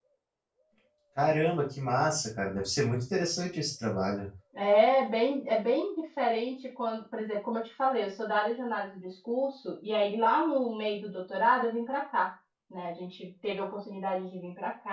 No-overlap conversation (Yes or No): Yes